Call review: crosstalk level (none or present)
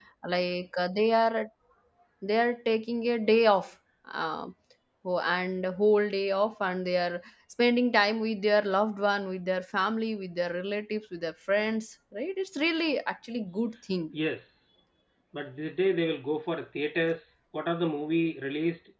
none